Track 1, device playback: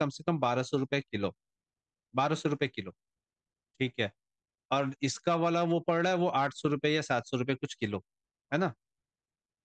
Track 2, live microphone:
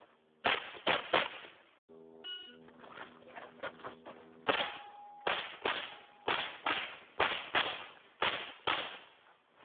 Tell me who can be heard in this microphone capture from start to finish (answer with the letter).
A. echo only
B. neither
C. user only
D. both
B